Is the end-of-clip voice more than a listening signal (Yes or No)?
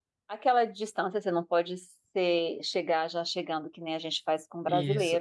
Yes